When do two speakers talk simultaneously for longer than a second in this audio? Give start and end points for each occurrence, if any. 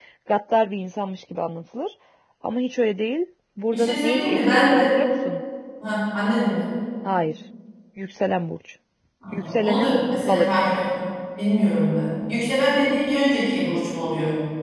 3.7-4.9, 9.3-10.6

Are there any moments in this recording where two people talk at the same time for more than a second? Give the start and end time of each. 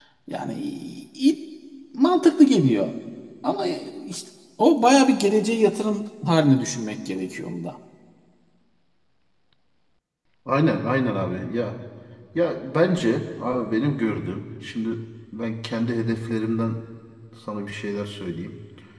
none

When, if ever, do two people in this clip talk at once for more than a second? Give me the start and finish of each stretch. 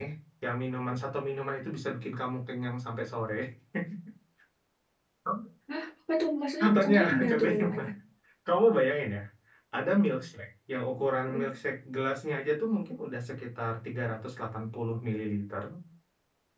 6.6-7.9

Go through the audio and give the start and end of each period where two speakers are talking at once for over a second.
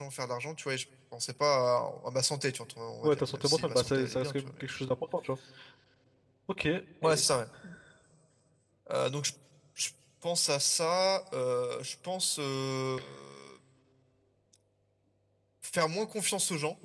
3.0-4.7

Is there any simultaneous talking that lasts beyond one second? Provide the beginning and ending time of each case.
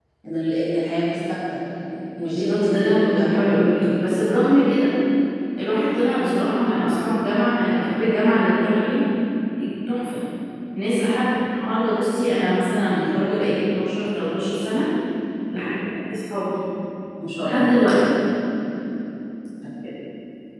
2.2-3.7

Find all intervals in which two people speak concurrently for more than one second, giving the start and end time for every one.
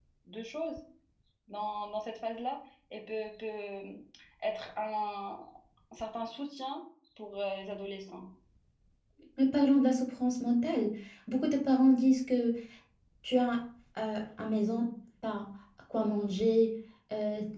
none

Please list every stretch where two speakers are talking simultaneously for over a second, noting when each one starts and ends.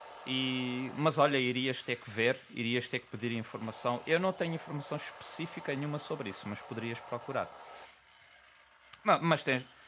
none

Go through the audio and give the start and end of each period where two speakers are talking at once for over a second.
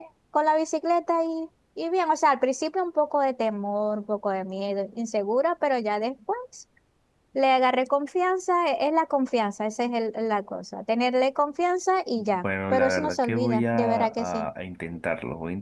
12.2-14.5

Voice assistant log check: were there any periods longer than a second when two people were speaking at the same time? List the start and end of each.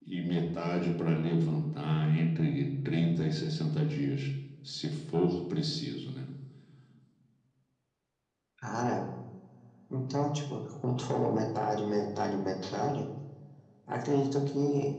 none

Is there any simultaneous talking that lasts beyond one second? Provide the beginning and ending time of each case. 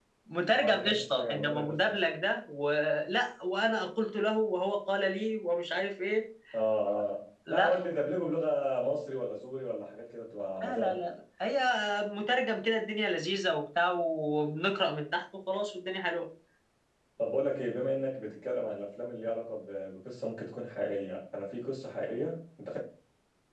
0.5-2.0

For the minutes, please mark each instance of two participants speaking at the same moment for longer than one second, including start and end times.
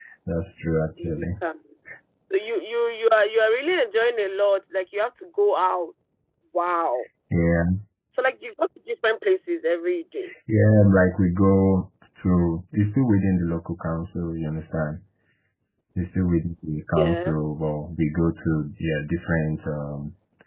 none

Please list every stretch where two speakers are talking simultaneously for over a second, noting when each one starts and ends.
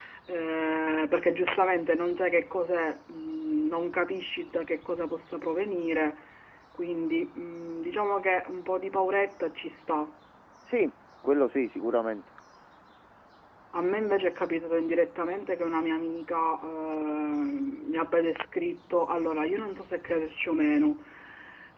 none

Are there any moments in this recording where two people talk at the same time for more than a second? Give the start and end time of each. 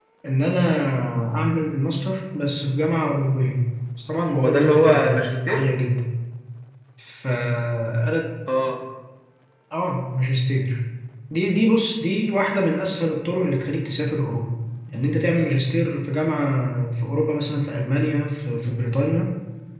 4.4-5.6

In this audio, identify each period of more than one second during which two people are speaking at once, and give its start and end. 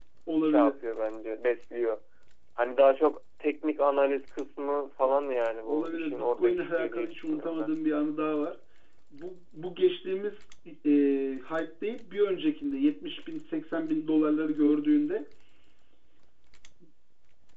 5.6-7.7

